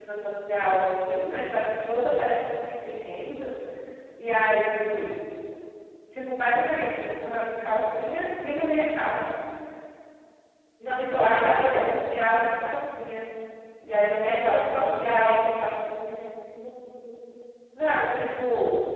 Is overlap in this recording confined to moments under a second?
No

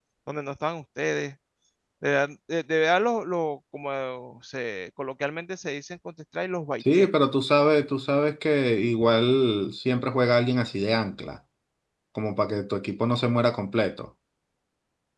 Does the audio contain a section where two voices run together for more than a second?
No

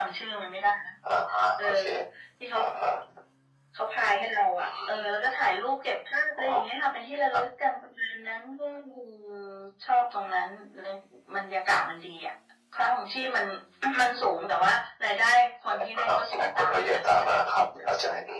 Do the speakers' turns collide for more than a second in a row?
Yes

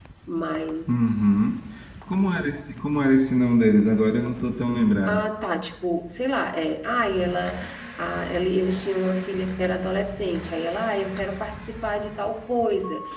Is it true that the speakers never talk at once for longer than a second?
Yes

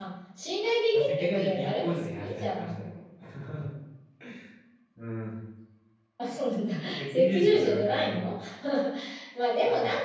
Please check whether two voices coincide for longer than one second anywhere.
Yes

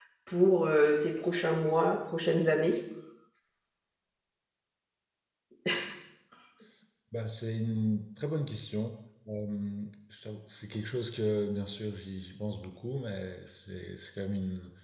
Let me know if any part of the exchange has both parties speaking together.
No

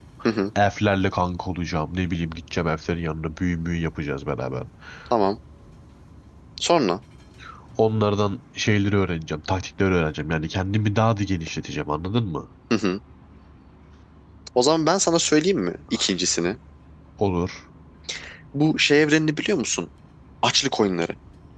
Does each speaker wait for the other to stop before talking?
Yes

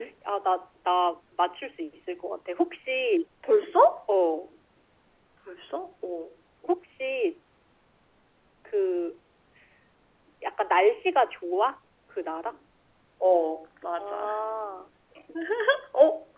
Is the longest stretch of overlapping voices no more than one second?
Yes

